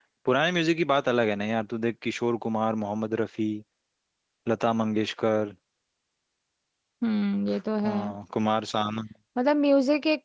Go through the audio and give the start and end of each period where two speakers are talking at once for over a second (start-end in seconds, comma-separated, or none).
none